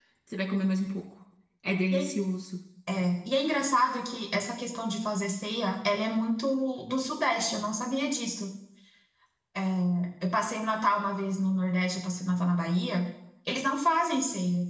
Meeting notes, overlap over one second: none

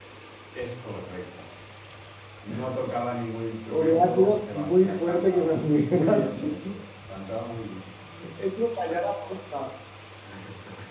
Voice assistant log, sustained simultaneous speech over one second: present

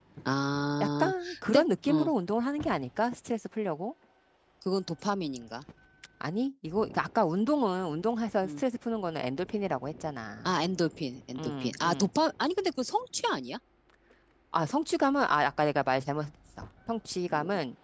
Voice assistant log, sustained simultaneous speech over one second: present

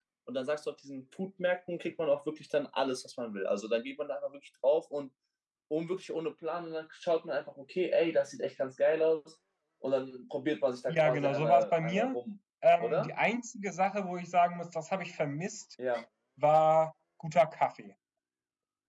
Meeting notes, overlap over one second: present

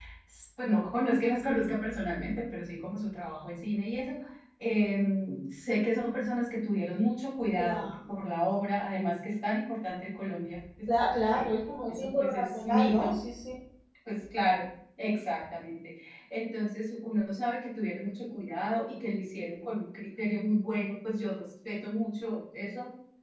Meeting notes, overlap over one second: present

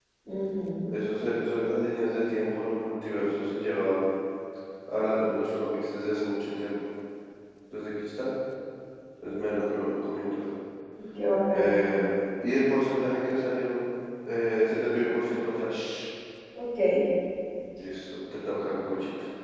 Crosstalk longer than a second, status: none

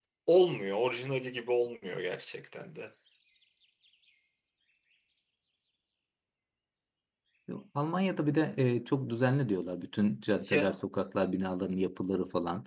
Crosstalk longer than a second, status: none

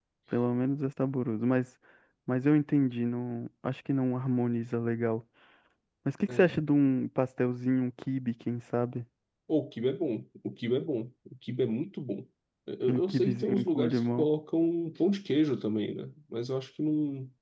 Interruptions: present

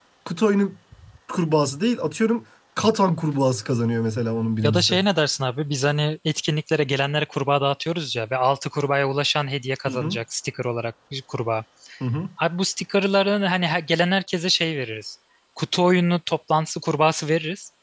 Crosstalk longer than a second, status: none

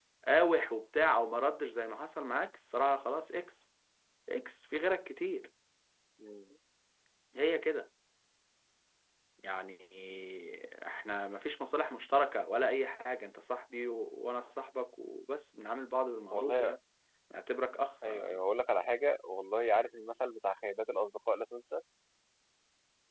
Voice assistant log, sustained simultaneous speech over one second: none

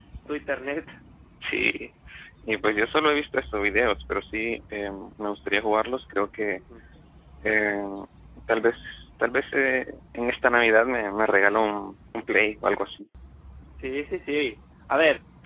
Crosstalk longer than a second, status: none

